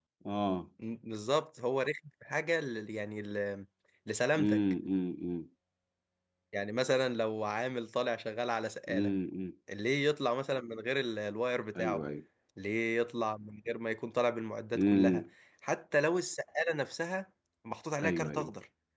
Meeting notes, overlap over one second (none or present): none